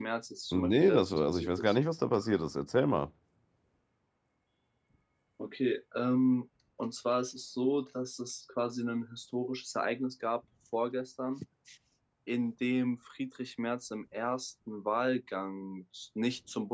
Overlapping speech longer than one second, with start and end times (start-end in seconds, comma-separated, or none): 0.5-1.8